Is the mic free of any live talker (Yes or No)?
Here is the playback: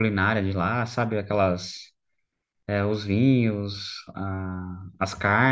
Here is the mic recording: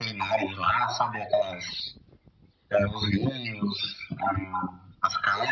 Yes